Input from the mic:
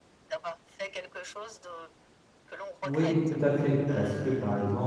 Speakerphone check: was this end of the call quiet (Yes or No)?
No